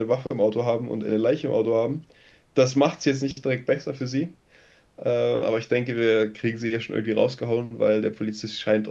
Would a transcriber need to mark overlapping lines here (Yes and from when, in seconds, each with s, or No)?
No